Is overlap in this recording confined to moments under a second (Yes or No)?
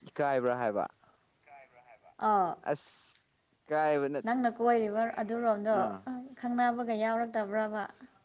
Yes